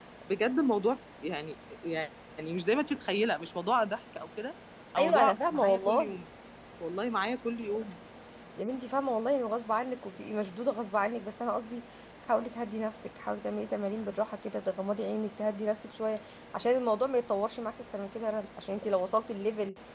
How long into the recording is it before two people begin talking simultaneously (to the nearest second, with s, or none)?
5 s